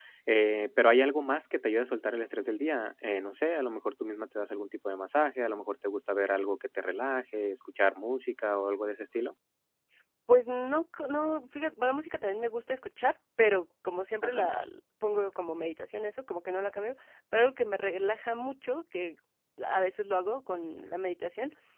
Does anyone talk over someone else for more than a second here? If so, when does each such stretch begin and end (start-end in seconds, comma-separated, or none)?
none